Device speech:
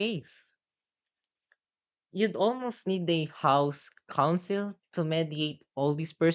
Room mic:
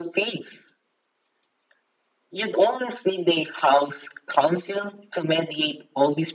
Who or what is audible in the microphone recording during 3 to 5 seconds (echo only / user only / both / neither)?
echo only